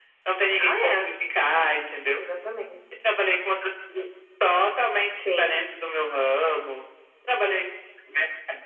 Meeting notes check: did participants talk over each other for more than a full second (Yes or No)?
No